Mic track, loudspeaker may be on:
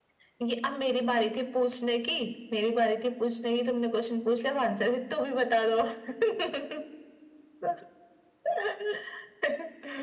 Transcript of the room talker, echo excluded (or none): none